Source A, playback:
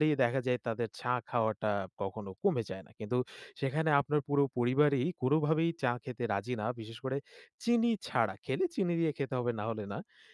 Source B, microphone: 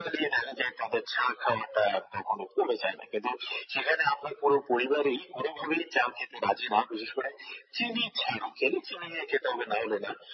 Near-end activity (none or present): none